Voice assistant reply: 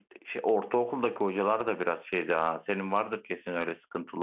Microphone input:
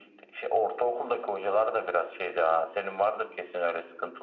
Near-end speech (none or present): none